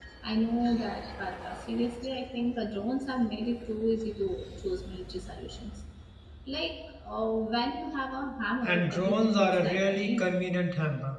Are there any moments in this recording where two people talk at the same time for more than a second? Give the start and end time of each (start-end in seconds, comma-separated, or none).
8.6-10.3